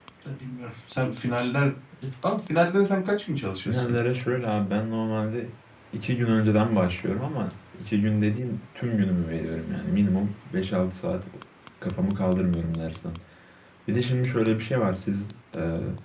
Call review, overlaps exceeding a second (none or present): none